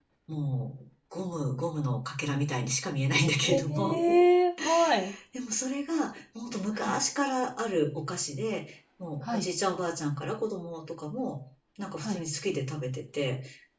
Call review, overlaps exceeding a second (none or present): none